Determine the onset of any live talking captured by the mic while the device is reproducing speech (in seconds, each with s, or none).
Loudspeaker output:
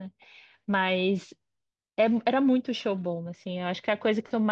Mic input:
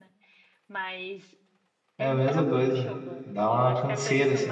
2.0 s